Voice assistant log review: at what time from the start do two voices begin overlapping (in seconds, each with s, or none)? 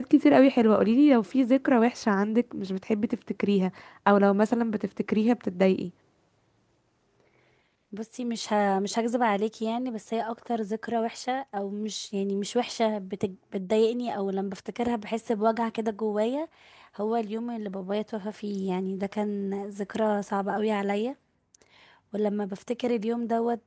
none